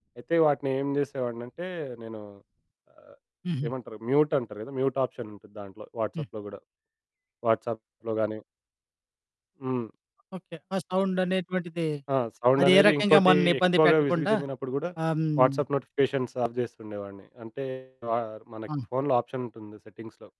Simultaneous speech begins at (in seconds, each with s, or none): 12.6 s